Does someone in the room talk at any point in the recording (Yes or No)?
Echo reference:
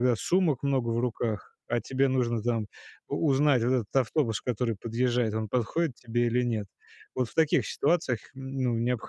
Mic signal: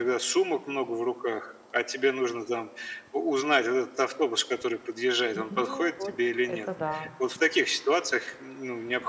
Yes